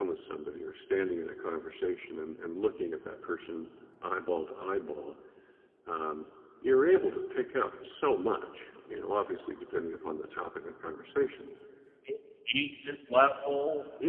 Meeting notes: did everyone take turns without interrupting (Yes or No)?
Yes